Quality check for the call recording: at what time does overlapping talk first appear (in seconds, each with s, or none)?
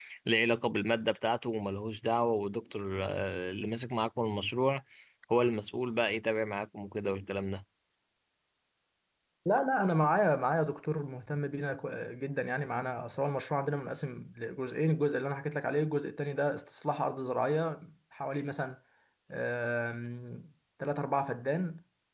none